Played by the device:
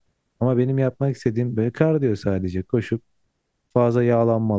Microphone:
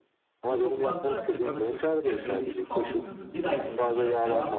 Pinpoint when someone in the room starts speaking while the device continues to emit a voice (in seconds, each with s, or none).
0.5 s